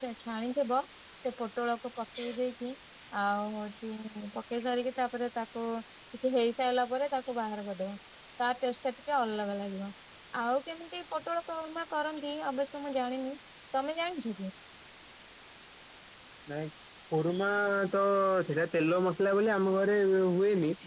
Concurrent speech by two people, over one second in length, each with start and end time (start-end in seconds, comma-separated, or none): none